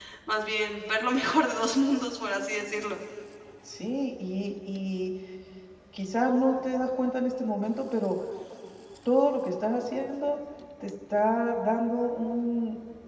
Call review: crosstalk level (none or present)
none